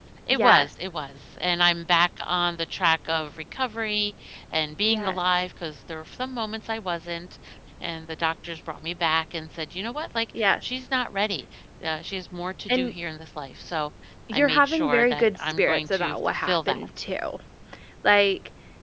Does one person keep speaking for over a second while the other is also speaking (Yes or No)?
Yes